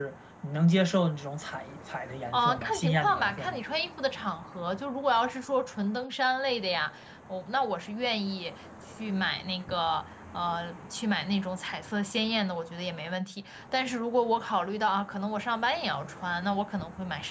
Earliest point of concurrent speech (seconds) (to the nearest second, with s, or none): 2 s